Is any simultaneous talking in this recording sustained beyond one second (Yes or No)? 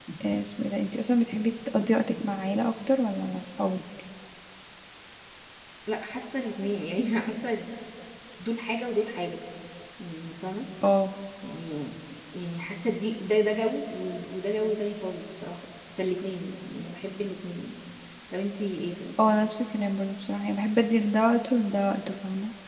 No